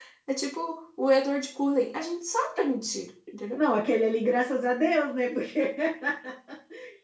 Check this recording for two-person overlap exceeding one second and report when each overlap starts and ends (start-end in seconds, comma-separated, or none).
none